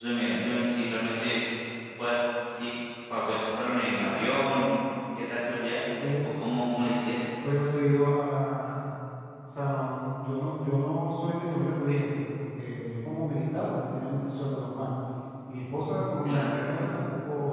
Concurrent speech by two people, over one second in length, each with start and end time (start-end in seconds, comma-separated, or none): none